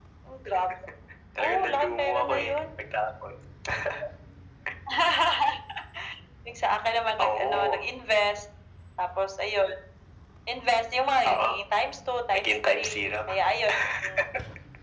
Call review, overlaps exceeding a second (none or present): present